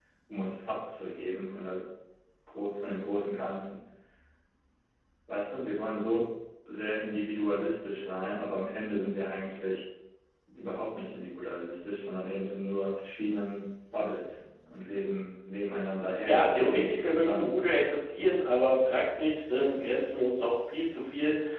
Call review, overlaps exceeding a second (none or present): present